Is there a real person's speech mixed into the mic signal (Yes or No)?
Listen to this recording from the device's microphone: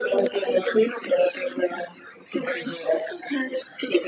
No